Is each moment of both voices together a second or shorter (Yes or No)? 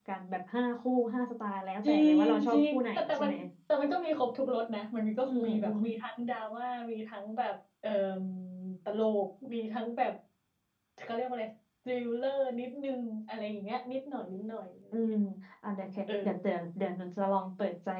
No